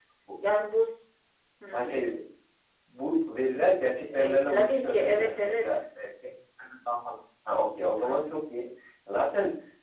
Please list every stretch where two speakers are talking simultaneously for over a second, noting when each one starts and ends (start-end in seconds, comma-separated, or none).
4.1-5.7